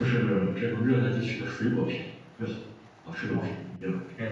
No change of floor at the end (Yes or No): No